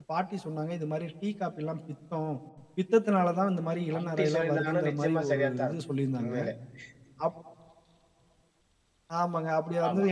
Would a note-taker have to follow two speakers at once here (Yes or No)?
Yes